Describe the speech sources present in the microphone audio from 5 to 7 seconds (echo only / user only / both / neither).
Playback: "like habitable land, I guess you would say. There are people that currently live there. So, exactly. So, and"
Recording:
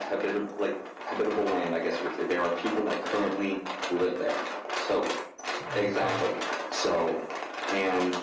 both